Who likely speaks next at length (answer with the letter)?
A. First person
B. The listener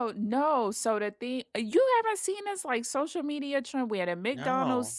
A